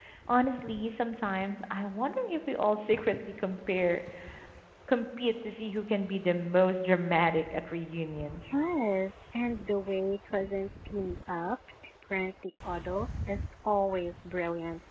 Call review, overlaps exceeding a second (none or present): none